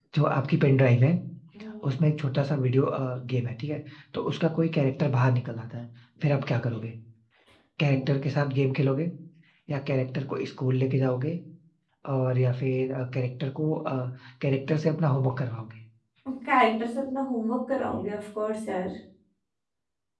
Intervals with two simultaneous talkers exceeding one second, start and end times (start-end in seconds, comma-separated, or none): none